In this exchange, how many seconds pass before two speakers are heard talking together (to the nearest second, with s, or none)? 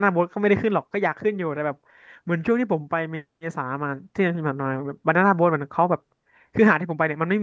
none